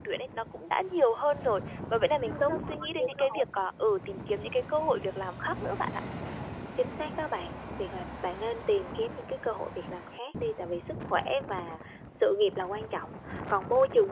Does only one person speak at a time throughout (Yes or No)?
No